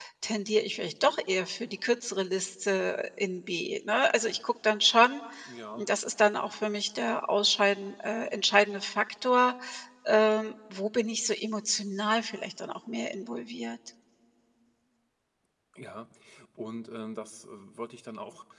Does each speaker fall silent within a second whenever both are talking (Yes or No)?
Yes